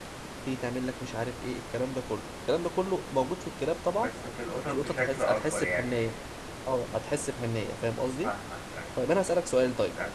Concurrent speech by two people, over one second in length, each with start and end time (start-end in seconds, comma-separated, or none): 4.6-5.9